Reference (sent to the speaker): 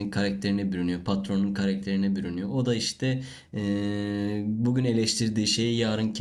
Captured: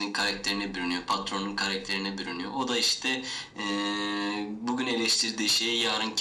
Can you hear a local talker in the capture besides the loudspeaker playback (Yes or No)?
No